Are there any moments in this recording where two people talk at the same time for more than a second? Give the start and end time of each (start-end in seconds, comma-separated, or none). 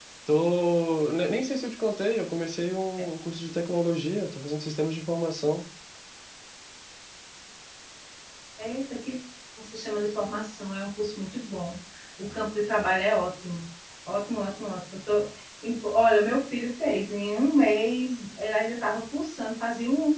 none